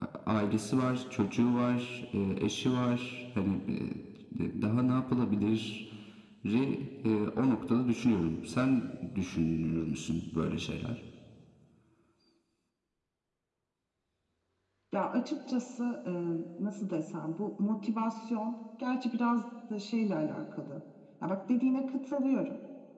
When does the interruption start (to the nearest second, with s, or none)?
none